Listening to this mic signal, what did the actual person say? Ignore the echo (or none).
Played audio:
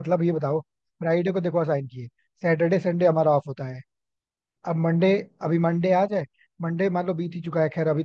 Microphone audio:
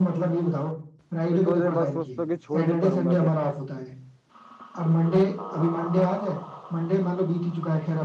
फिर थोड़ी देर बाद सोचता हूँ कि छोड़ के करूंगा क्या